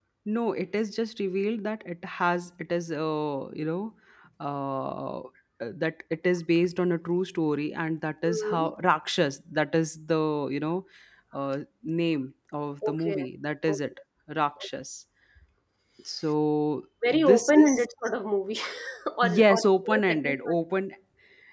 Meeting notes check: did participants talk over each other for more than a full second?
Yes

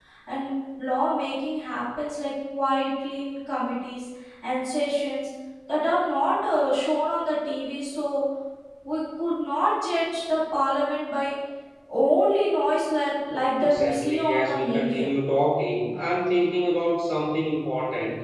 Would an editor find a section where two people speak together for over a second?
Yes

